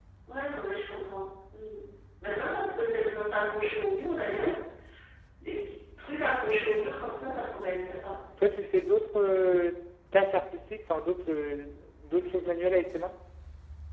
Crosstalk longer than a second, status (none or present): none